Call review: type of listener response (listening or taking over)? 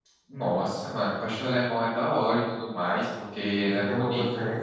taking over